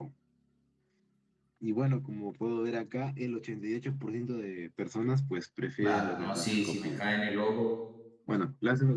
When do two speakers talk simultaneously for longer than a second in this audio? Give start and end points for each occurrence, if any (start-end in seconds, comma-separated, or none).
5.8-7.0